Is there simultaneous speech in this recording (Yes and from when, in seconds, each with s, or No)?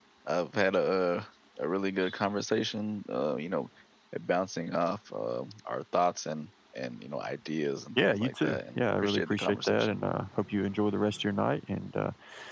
Yes, from 8.0 s